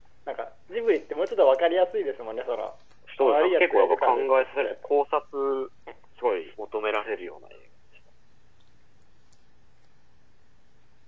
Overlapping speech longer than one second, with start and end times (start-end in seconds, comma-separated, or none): 3.2-4.7